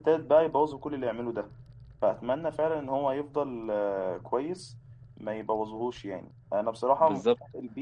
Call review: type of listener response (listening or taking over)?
listening